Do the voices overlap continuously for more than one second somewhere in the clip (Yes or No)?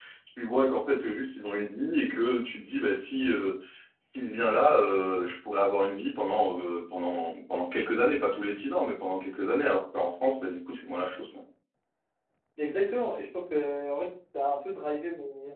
No